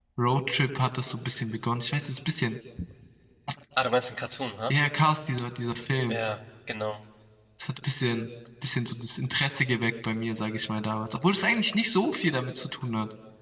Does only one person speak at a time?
Yes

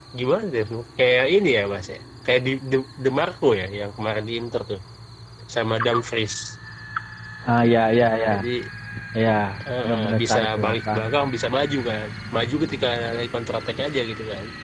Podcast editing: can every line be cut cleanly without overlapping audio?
No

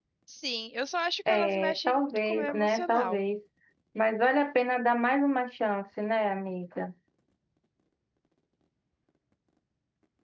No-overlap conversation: No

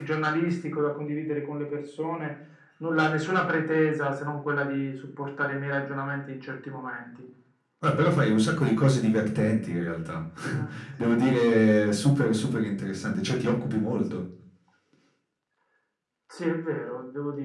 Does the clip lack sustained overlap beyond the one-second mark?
Yes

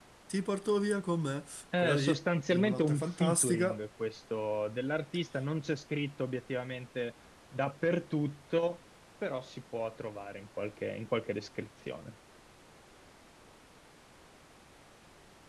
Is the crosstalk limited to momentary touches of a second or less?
No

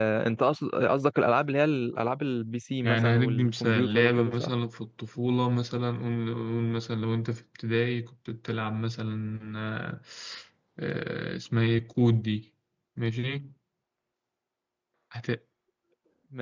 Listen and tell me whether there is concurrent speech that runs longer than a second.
Yes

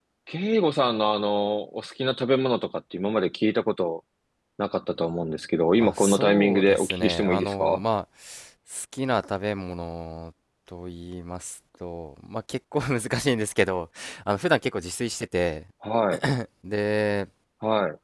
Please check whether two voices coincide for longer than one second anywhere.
Yes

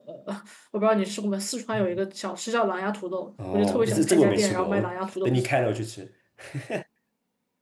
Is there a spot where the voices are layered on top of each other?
Yes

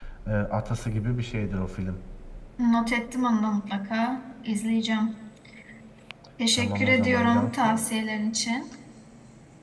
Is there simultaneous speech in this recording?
Yes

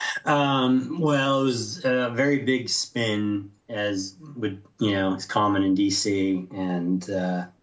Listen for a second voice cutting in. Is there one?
No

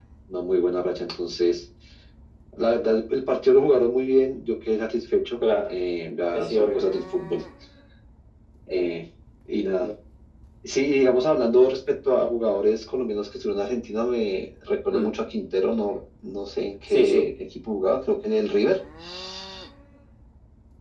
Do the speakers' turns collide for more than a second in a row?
No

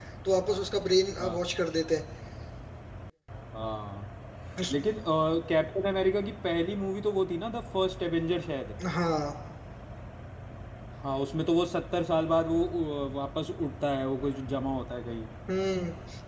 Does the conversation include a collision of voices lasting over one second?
No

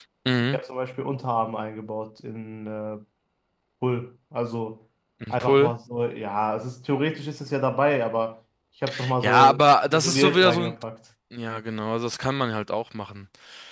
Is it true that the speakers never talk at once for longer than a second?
No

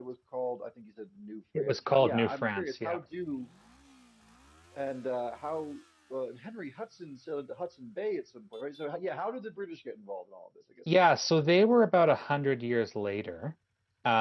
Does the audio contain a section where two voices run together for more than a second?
Yes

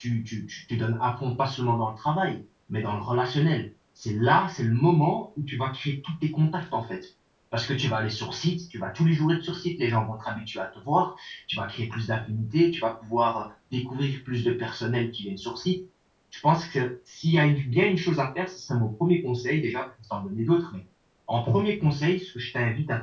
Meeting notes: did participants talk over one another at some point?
No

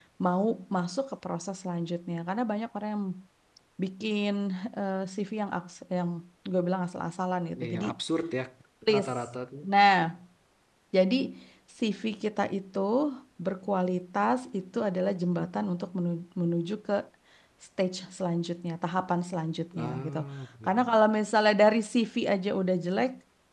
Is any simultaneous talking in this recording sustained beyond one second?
No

